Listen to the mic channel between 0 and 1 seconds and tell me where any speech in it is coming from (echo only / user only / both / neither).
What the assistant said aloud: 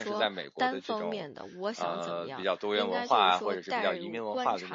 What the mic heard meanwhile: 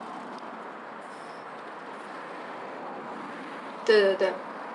neither